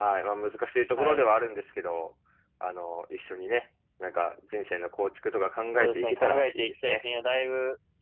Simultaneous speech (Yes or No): Yes